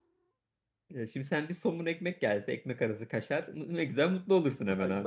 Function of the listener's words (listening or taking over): taking over